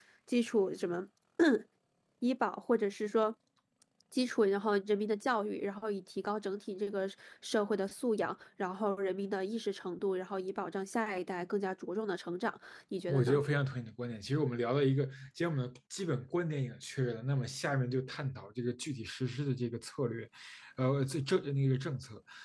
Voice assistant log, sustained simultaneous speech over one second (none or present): none